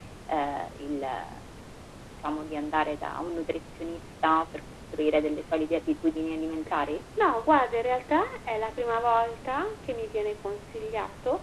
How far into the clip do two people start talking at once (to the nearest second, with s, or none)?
none